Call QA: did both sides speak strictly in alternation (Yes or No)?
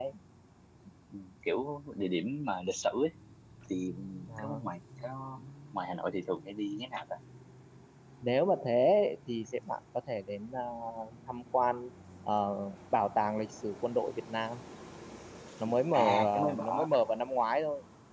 No